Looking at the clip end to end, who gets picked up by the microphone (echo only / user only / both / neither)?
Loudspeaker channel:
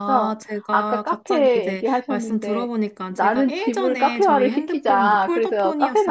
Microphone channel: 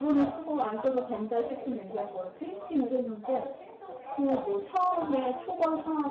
both